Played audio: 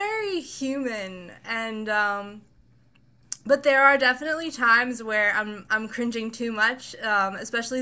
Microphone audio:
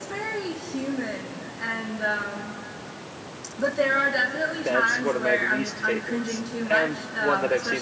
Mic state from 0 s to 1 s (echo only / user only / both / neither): echo only